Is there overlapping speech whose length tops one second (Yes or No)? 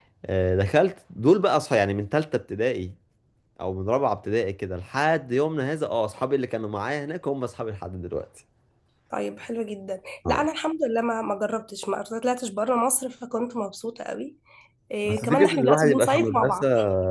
Yes